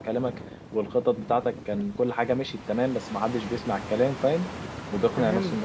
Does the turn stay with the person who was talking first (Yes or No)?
No